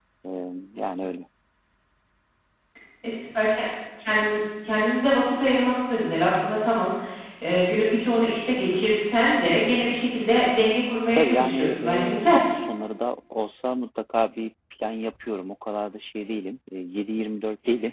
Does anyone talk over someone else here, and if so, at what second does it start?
11 s

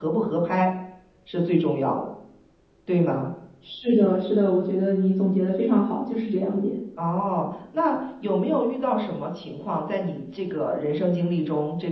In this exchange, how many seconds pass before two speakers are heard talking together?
none

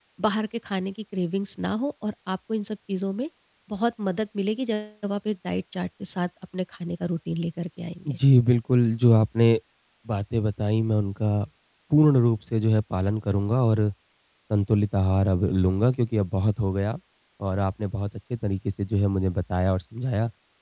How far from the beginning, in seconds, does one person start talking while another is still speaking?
none

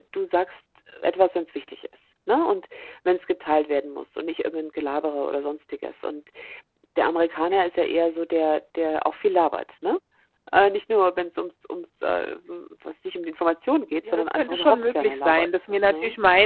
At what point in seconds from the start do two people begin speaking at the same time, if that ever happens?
14 s

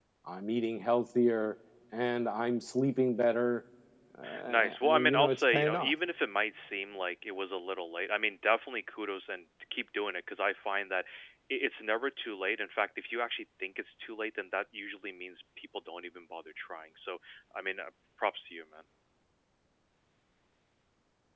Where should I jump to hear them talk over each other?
4 s

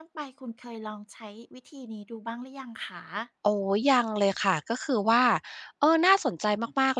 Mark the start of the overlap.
none

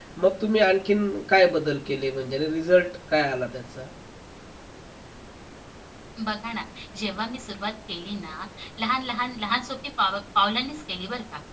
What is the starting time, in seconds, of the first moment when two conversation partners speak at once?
none

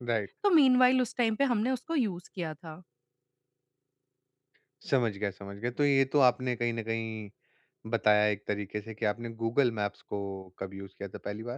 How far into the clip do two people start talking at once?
none

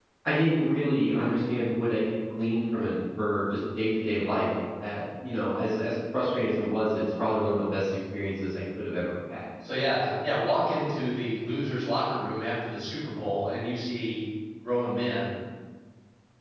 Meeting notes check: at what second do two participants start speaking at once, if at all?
none

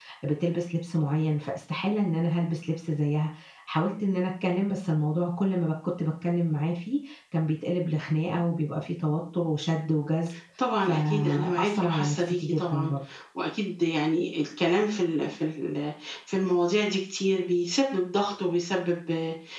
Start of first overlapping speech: 11 s

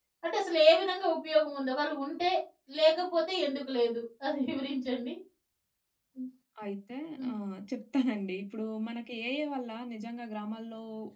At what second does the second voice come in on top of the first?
none

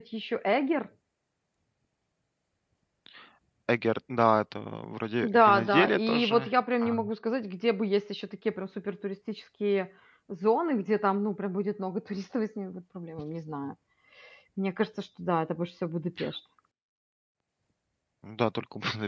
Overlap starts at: 5 s

